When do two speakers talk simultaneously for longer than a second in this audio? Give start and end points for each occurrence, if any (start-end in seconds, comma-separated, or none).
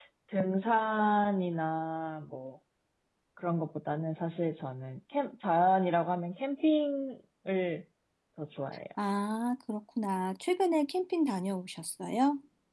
none